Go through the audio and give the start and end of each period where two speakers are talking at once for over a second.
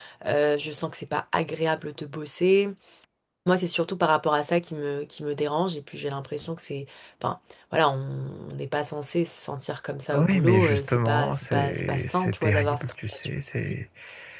10.1-13.3

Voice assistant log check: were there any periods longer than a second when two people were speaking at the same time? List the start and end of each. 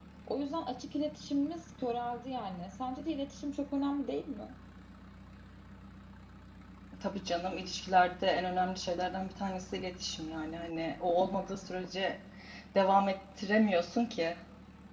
none

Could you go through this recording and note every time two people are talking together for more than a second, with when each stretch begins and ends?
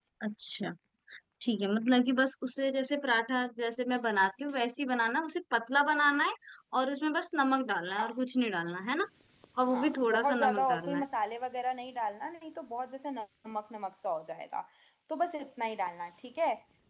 9.7-11.0

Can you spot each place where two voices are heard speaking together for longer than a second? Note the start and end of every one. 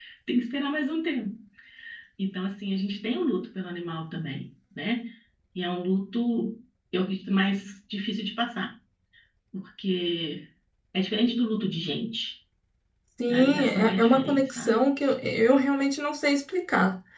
13.3-14.8

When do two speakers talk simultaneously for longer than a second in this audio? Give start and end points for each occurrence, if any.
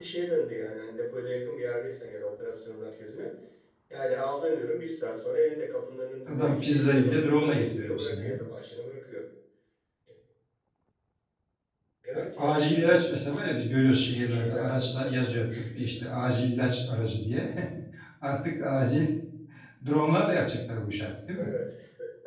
6.3-8.4, 12.1-15.7

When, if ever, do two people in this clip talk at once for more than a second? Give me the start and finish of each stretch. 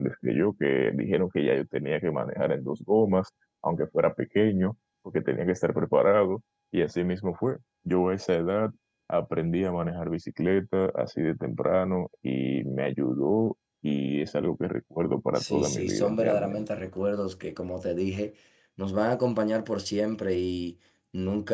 15.4-16.6

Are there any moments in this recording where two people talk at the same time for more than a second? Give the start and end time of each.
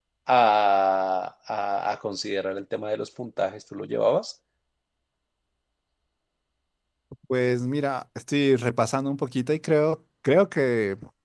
none

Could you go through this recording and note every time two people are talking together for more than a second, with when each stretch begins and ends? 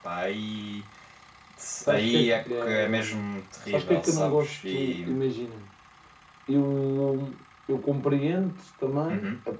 1.9-3.2, 3.7-5.0

